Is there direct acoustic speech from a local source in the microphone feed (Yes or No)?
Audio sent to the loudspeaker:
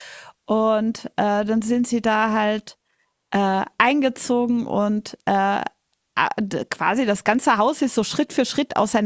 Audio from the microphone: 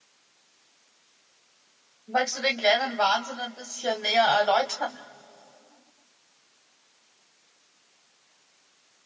Yes